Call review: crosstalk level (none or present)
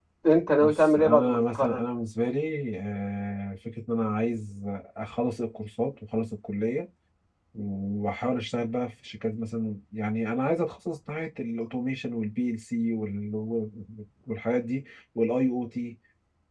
present